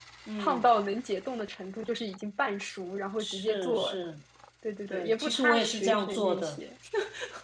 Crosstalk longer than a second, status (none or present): present